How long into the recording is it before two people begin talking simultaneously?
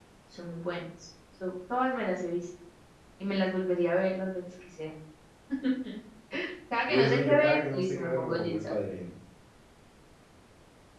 6.9 s

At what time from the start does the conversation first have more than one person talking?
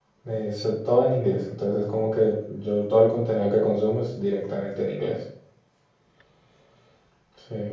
none

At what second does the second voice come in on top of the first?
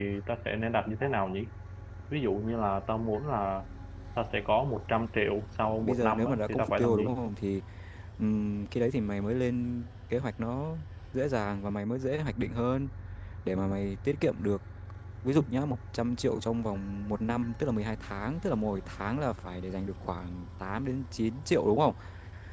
5.7 s

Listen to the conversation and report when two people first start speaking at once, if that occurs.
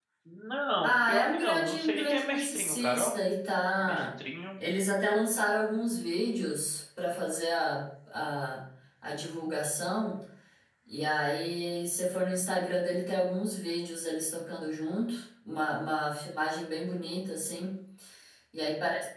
0.8 s

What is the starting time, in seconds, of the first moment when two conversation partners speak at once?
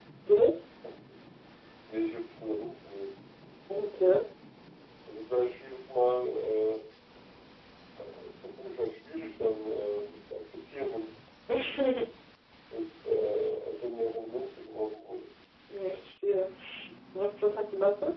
none

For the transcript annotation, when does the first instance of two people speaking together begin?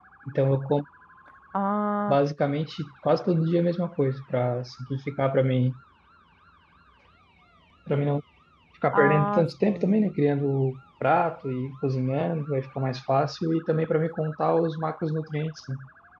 8.9 s

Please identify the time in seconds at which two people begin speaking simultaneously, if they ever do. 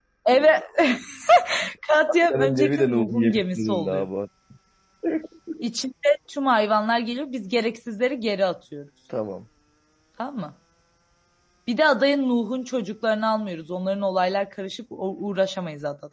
2.1 s

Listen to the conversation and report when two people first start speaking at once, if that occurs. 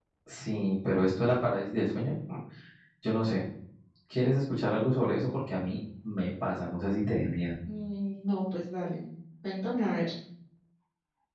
none

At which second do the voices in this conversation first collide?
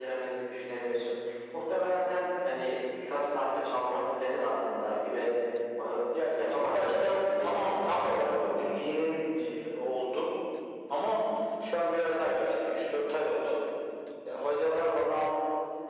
6.5 s

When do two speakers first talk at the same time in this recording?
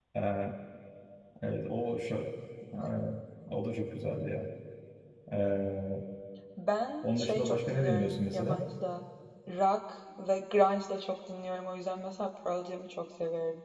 7.0 s

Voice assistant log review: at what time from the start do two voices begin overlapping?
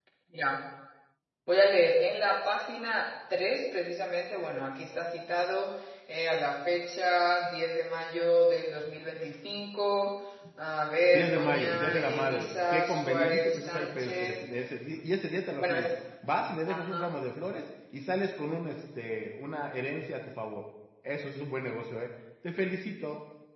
11.1 s

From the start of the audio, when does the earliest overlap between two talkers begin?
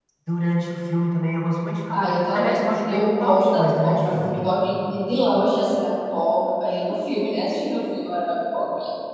1.9 s

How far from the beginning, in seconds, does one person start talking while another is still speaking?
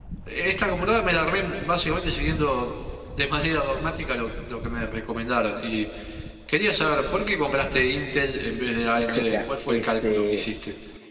8.9 s

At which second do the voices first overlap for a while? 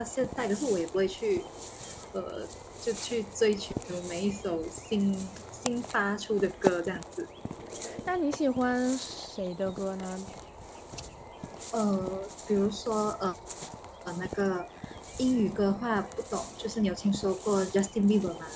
none

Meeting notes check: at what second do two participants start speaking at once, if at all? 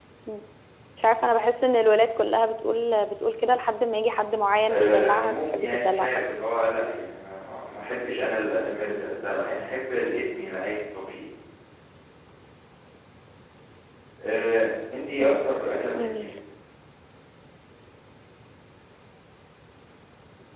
4.7 s

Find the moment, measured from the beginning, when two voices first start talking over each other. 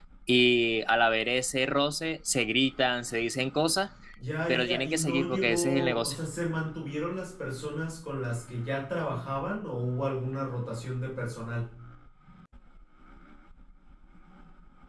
4.5 s

